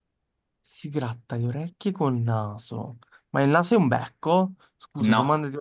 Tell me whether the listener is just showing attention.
Yes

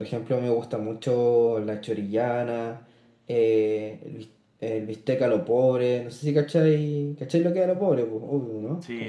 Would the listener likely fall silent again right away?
No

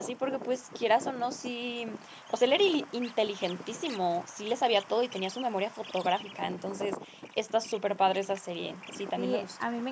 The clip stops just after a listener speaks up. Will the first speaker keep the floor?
No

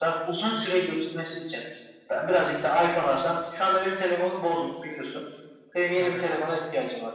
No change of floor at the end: Yes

